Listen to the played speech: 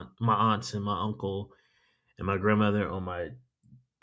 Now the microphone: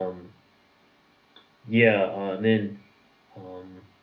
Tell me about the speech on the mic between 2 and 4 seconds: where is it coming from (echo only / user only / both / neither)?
user only